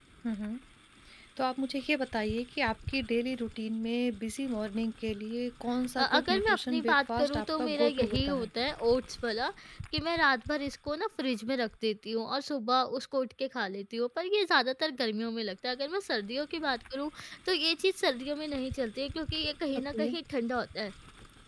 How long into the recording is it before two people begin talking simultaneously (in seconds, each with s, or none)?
6.0 s